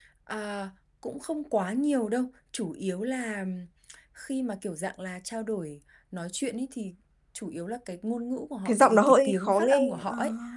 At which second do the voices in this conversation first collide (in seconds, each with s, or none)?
8.7 s